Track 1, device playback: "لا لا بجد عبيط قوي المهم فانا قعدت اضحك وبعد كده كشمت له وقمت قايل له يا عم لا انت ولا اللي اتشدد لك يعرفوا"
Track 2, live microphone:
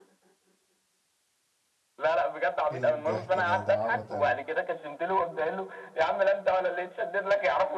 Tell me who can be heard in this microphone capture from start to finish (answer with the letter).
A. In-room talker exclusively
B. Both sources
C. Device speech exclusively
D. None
B